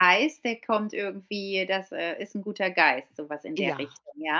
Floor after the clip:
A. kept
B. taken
B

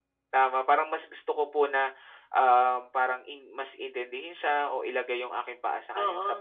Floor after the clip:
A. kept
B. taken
A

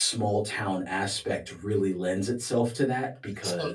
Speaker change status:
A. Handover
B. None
B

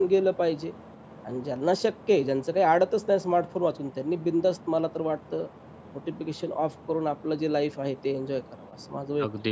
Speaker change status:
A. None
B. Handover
B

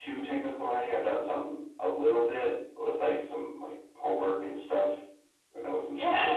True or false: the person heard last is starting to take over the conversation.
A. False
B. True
B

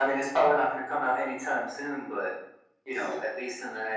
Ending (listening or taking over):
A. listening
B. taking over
A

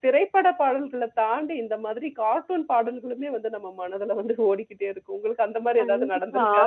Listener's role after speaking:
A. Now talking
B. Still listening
A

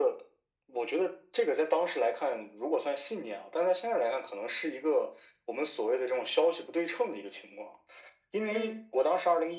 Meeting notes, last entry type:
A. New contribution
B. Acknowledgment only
B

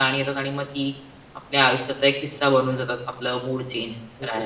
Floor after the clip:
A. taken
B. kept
A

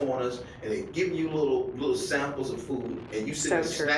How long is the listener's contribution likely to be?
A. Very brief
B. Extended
A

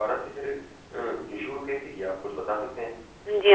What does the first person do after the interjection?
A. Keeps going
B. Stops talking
B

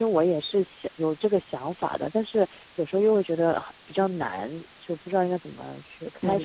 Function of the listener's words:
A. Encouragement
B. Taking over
B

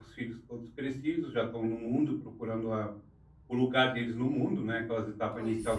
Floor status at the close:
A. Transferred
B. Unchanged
B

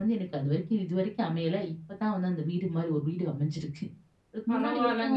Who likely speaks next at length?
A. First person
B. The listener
B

